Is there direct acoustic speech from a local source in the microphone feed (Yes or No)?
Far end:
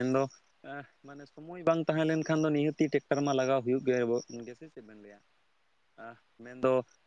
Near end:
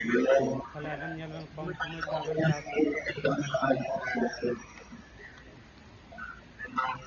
Yes